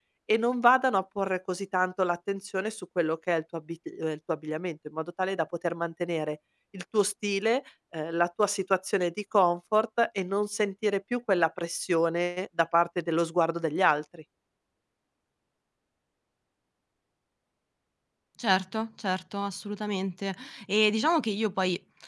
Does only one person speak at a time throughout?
Yes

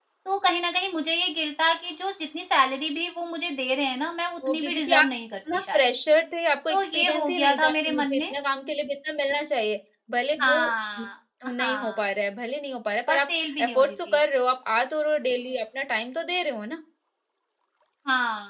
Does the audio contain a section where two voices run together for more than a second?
Yes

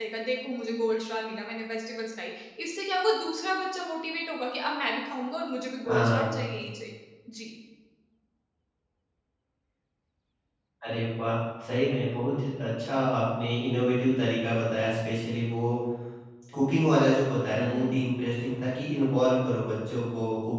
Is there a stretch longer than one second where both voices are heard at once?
No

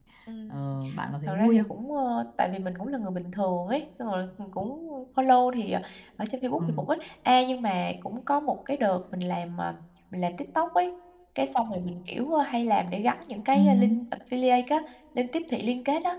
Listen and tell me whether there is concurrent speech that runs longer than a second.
No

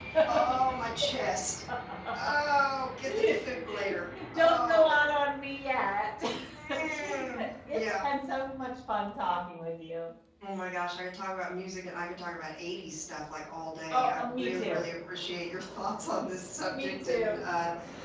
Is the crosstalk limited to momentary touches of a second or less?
No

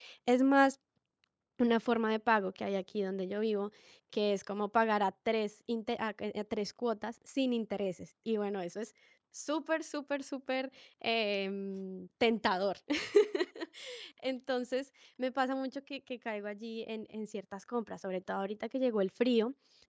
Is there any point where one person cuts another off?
No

